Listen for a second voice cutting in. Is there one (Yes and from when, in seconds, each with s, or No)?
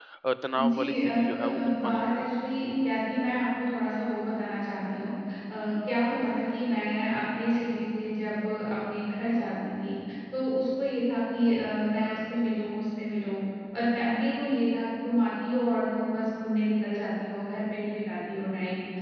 Yes, from 0.5 s